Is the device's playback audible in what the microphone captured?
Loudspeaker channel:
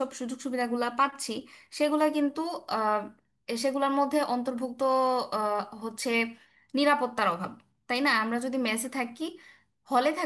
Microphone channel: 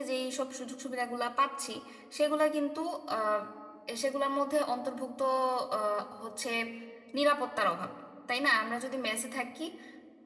Yes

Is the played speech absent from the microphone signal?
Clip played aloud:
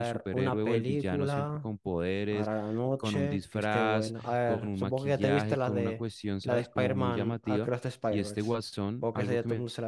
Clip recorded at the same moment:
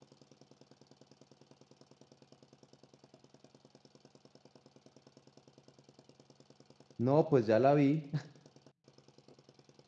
Yes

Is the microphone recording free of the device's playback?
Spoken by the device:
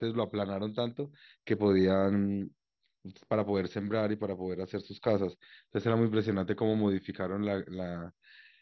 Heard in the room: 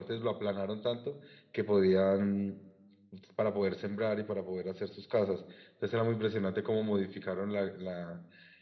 No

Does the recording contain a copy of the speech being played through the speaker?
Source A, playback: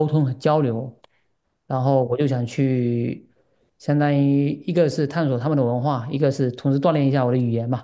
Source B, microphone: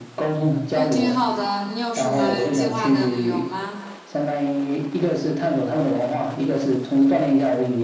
Yes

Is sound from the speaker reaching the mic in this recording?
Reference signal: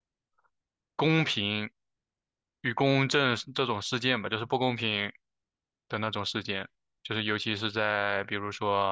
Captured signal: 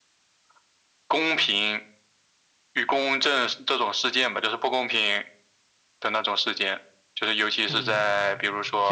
Yes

